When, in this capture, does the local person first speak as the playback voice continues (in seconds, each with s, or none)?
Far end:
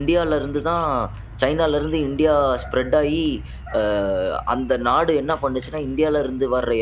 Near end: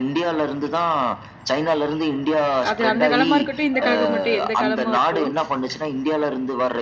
2.7 s